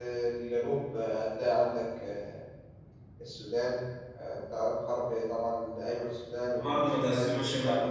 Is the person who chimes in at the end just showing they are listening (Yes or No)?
No